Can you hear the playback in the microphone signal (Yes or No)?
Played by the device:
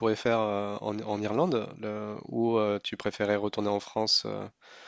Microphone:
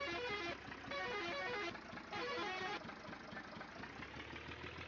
No